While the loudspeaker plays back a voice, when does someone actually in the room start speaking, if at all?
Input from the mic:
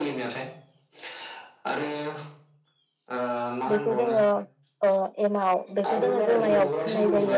3.7 s

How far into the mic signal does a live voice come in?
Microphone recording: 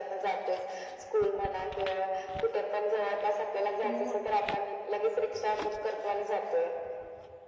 3.8 s

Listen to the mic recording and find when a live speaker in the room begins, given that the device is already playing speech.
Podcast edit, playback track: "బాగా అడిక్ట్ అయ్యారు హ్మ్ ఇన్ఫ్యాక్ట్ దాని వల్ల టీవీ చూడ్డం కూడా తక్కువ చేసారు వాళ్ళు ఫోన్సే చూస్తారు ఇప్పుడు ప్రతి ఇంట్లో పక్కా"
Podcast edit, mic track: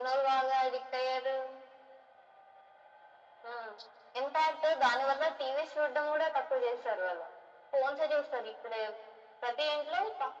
none

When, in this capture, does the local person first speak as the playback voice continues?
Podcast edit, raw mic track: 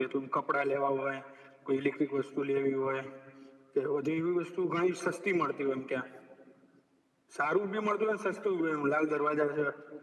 none

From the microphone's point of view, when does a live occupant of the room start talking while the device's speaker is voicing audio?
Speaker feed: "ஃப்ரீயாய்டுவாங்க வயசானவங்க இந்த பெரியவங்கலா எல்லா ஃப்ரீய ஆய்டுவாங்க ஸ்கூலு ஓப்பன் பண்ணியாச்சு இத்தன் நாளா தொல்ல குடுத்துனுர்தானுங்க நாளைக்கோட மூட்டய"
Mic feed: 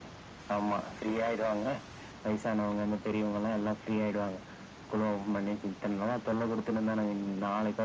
none

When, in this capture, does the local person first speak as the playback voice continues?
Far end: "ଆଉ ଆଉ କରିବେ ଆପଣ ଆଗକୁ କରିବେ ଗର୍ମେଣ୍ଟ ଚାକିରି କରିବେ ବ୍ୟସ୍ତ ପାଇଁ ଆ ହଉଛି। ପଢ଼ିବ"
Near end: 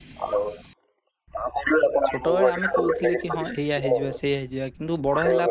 2.1 s

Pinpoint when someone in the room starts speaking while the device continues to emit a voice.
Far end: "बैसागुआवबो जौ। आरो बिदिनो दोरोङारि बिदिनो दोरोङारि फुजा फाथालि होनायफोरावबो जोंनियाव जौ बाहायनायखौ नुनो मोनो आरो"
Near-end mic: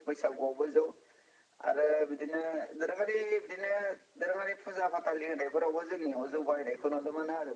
none

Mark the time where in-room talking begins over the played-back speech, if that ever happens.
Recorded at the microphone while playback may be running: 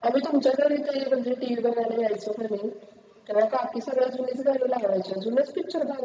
none

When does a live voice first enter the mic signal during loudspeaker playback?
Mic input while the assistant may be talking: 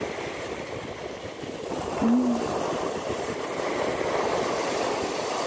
2.0 s

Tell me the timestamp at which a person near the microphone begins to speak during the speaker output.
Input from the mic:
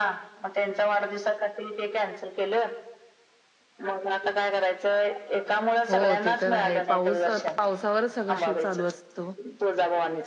5.9 s

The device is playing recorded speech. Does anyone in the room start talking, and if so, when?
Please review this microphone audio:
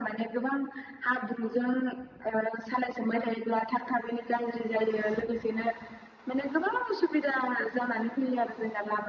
none

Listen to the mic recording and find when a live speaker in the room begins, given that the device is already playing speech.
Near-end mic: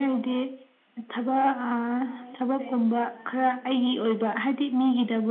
none

